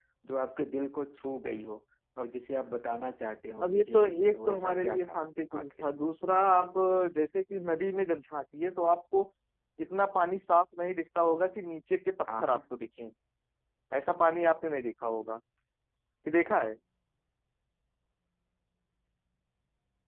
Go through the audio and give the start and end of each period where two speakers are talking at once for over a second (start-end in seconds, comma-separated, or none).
3.6-5.2